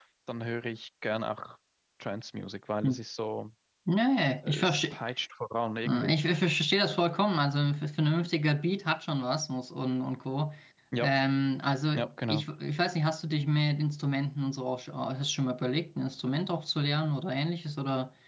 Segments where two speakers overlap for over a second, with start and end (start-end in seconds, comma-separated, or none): none